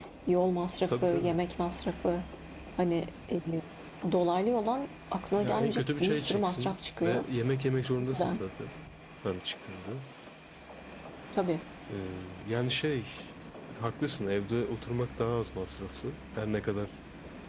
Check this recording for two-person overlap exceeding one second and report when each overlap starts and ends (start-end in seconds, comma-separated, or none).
5.4-7.2